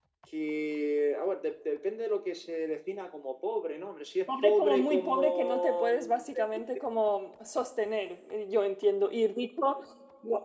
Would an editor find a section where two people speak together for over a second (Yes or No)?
Yes